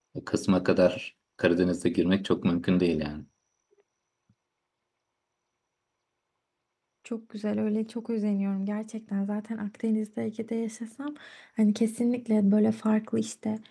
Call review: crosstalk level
none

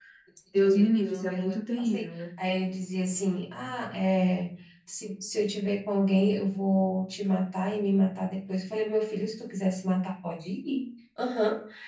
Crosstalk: present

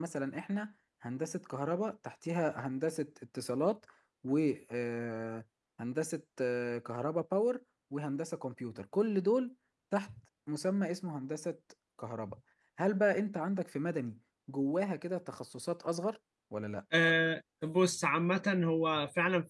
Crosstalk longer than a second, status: none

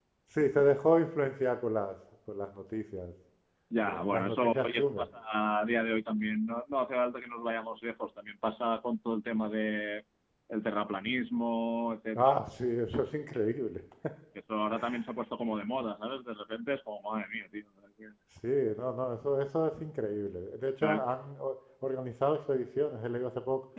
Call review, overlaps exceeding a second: present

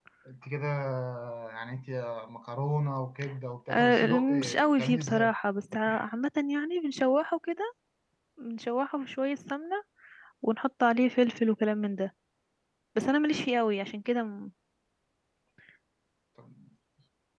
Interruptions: present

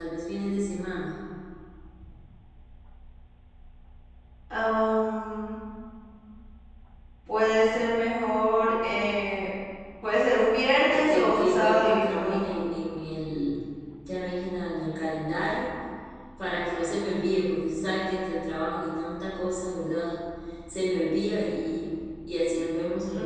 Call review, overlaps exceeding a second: present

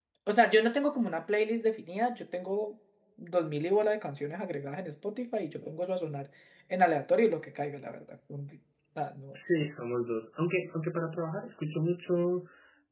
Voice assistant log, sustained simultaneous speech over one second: none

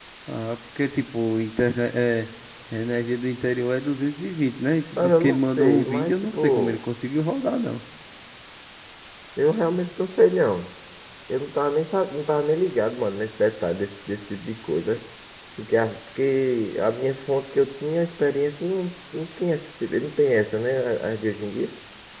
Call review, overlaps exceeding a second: present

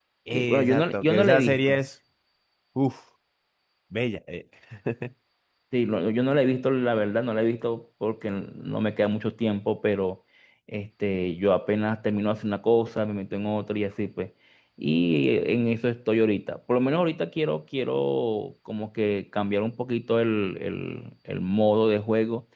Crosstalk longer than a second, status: present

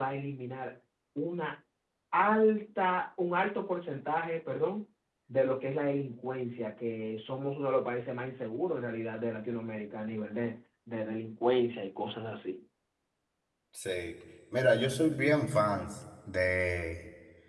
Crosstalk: none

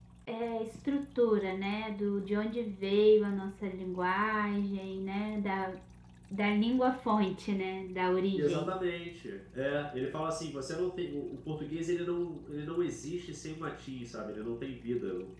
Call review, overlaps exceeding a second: none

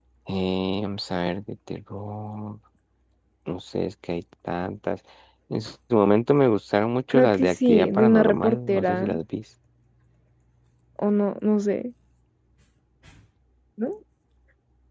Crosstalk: present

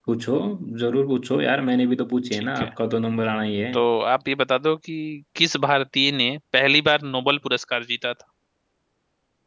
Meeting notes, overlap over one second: none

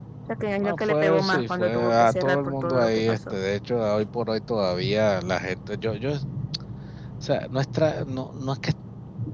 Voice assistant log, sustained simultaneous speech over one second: present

